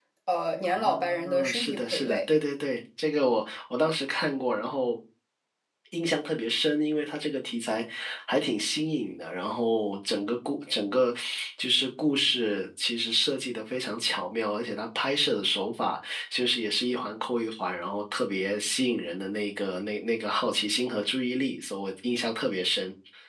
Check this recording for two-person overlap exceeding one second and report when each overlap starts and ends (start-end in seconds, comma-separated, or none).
0.6-2.2